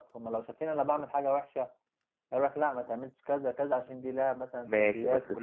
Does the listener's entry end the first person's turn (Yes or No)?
Yes